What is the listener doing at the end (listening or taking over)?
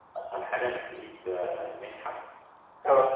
listening